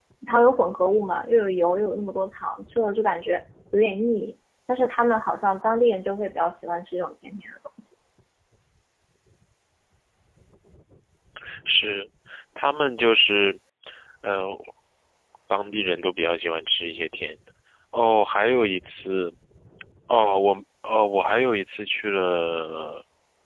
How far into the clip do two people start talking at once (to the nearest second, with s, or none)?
none